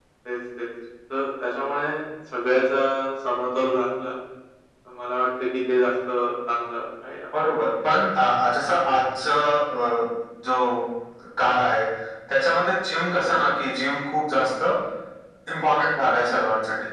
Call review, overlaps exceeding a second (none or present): none